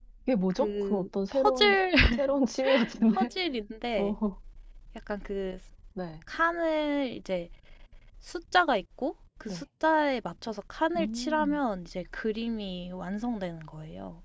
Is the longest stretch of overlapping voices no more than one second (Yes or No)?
No